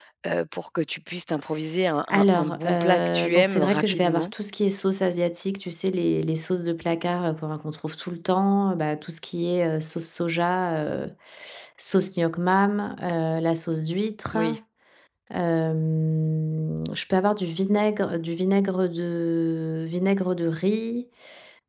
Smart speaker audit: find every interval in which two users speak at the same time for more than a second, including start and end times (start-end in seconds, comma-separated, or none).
2.1-4.3